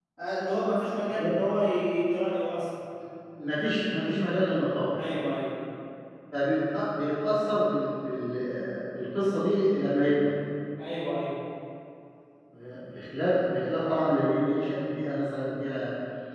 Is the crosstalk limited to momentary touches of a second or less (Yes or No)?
Yes